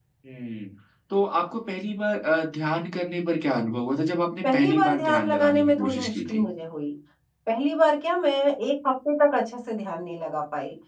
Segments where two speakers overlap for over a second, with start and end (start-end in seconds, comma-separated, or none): 4.4-6.4